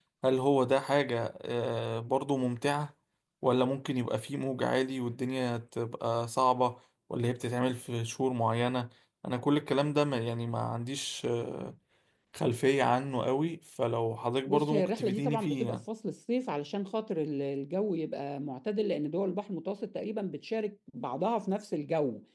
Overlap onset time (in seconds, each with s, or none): 14.5 s